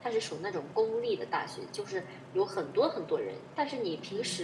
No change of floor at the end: Yes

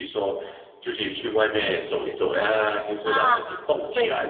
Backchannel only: No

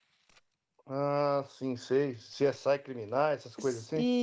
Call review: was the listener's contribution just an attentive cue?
No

